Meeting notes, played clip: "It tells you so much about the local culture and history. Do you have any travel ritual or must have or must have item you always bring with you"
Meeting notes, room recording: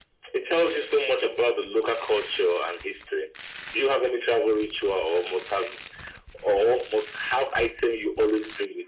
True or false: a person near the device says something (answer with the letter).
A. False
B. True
A